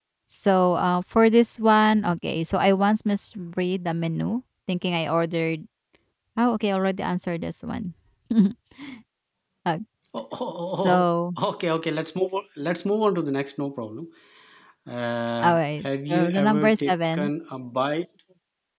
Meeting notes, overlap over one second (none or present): present